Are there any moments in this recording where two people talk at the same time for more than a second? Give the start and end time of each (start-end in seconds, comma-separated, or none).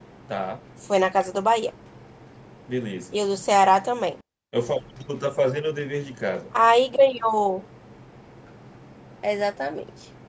none